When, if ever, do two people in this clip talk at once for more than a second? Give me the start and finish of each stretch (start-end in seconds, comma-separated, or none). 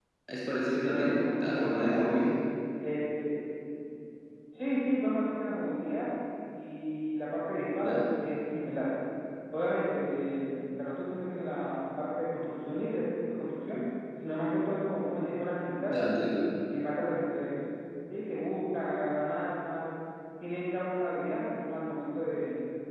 0.9-2.2